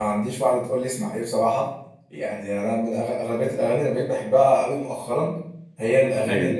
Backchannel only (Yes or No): Yes